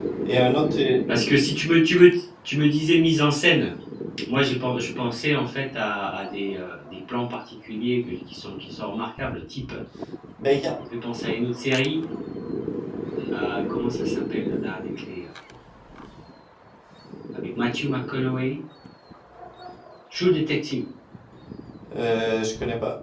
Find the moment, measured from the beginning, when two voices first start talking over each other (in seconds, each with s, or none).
none